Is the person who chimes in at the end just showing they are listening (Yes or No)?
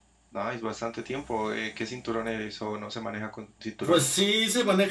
No